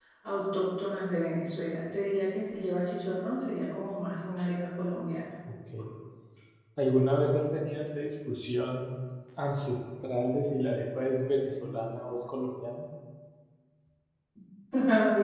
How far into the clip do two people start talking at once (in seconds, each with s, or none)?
none